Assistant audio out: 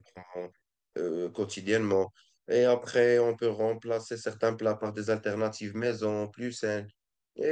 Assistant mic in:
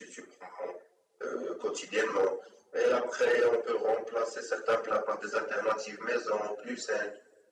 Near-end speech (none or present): none